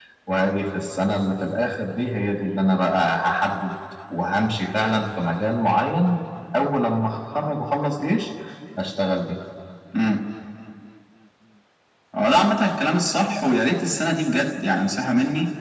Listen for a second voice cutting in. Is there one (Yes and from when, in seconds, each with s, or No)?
No